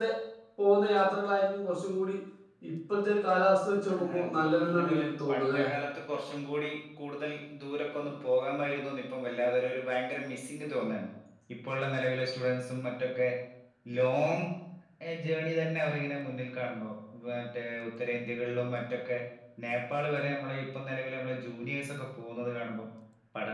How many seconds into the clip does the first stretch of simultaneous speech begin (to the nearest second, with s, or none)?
4 s